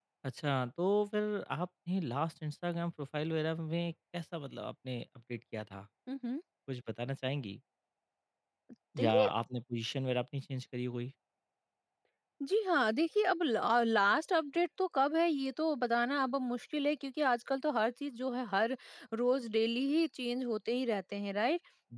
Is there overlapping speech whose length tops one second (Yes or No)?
No